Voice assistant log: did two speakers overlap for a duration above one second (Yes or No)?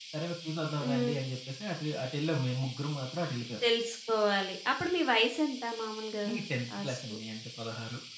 No